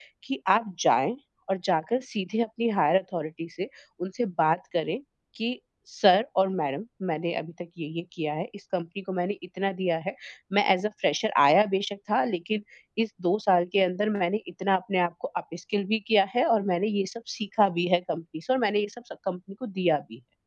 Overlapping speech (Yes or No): No